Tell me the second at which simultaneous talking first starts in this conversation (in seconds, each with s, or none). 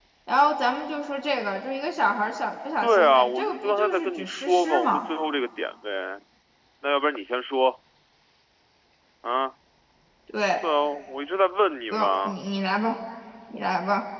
2.8 s